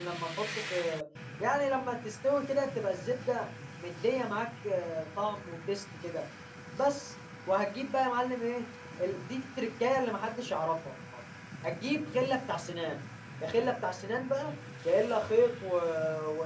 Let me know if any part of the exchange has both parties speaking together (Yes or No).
No